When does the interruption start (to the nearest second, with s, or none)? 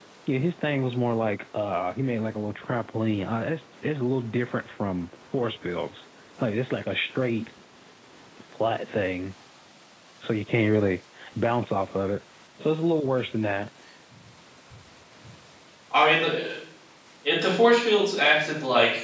none